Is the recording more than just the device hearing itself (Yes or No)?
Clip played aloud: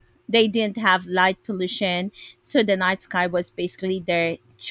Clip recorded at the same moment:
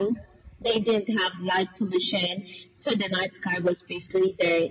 No